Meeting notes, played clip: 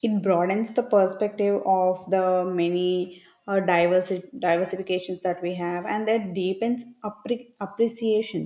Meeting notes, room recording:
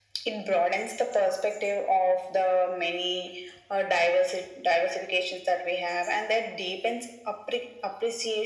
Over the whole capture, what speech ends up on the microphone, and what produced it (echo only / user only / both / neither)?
echo only